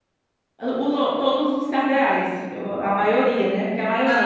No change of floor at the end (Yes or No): No